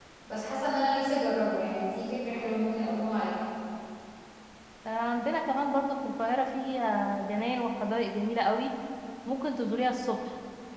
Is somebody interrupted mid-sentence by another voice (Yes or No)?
No